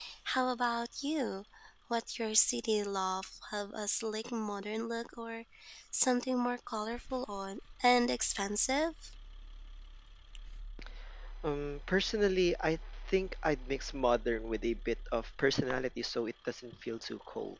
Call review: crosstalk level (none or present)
none